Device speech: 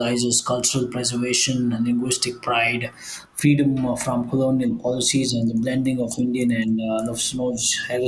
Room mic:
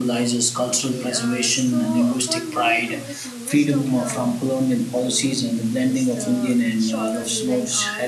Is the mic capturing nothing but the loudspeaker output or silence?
No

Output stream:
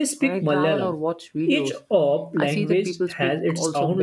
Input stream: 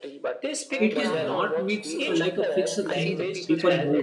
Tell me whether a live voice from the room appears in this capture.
Yes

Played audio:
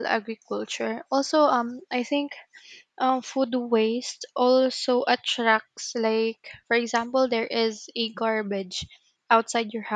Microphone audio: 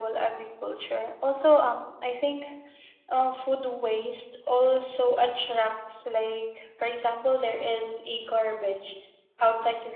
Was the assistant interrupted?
No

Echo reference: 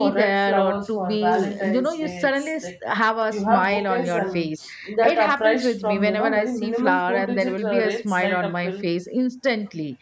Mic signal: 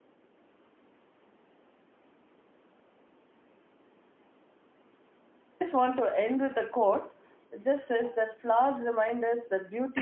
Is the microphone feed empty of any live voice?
No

